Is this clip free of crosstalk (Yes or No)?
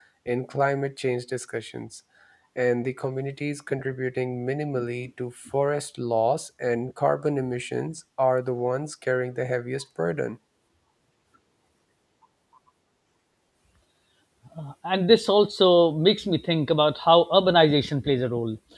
Yes